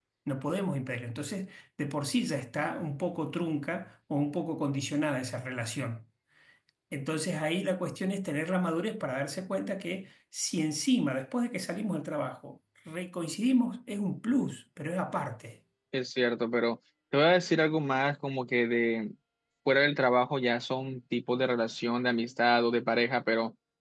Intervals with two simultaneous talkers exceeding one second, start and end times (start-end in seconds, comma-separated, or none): none